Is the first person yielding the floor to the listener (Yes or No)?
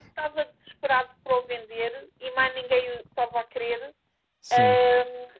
No